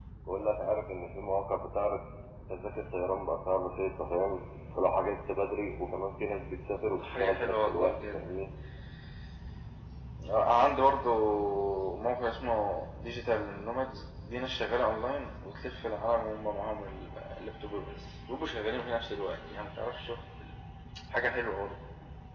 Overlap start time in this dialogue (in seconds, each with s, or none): 7.0 s